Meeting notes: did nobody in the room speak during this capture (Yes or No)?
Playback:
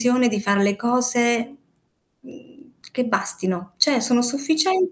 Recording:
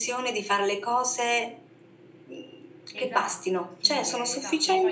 No